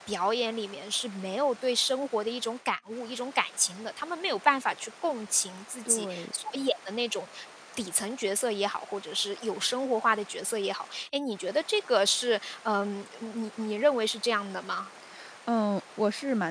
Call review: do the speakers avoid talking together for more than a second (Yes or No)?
Yes